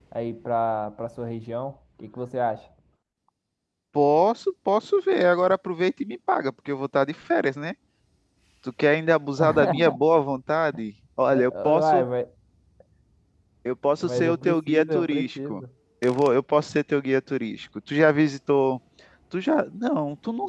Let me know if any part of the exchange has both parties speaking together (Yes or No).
Yes